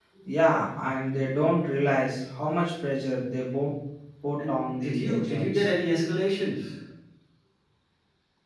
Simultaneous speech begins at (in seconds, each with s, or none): 4.4 s